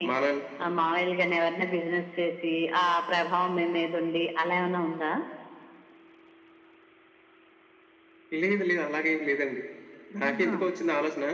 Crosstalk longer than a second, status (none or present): none